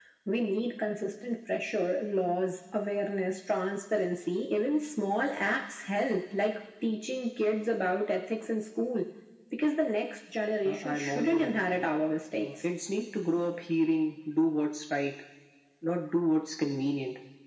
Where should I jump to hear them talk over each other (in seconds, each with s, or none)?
10.6 s